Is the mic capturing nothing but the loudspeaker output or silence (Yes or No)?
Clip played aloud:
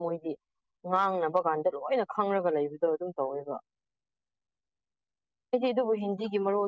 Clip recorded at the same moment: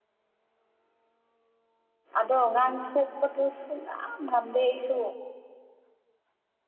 No